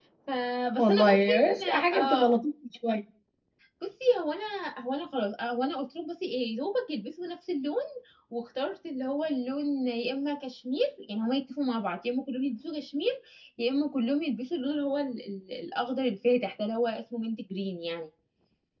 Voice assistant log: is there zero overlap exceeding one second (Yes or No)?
No